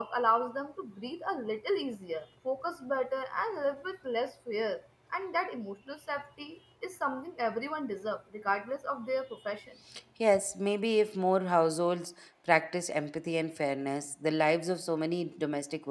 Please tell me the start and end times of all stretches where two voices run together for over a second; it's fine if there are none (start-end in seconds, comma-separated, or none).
none